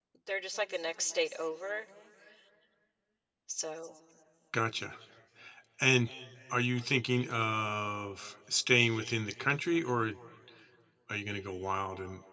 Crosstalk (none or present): none